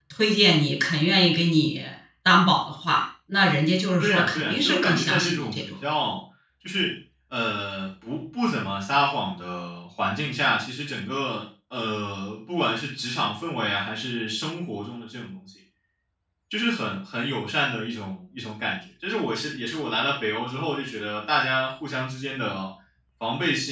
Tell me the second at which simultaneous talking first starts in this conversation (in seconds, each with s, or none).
4.0 s